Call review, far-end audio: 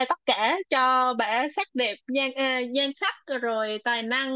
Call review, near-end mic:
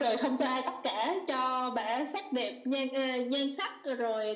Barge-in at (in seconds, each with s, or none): none